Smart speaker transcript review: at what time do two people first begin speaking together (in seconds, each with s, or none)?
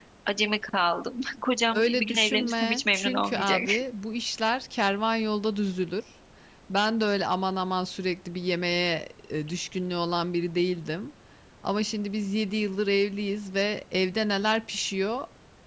1.7 s